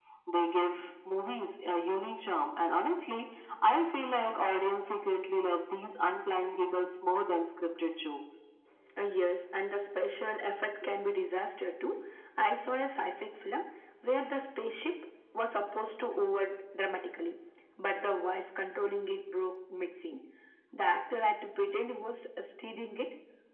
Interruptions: none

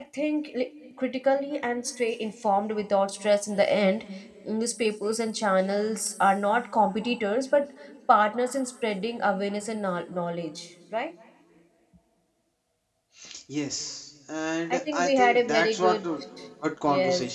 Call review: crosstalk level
present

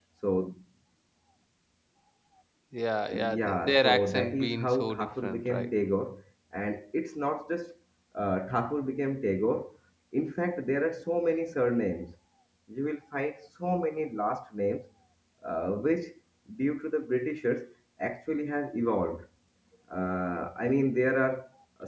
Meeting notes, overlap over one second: present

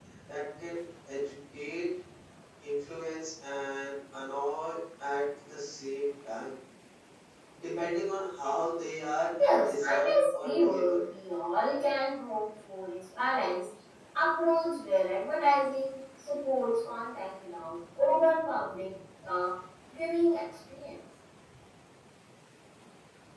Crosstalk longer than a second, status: present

